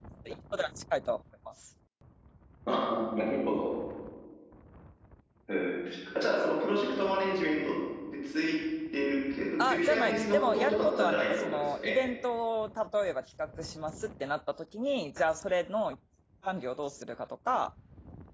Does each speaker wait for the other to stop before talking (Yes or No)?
No